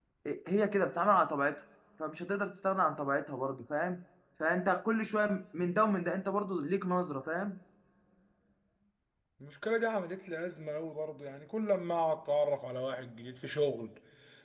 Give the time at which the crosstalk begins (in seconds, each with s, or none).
none